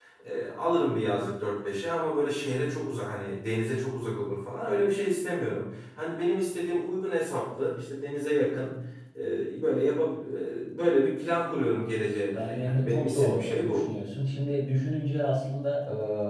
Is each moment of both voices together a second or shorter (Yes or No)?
No